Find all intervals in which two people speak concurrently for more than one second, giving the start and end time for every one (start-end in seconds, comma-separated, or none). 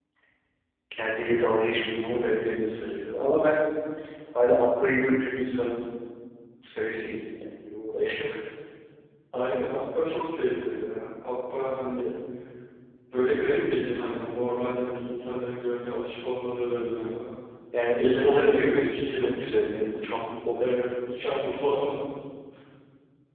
18.0-19.3